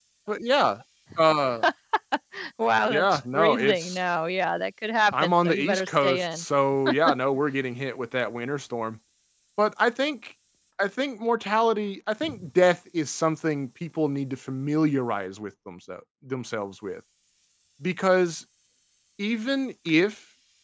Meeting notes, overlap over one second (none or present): present